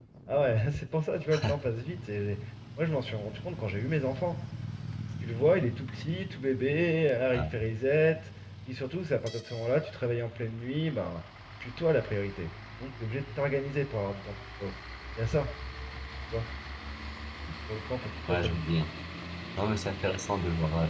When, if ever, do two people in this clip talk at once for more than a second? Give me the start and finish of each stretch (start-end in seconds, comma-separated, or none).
none